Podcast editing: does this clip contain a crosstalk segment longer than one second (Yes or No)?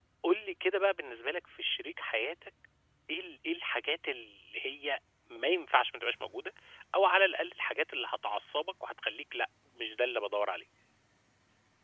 No